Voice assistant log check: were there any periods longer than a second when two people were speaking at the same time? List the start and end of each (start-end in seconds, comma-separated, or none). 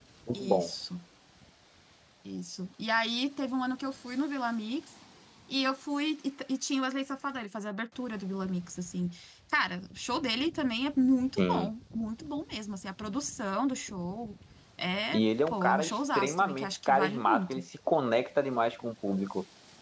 15.1-17.6